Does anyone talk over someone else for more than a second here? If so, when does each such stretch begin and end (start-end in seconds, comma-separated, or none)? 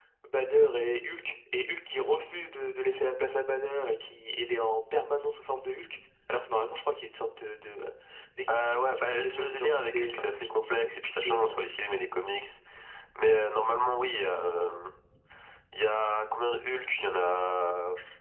8.5-11.5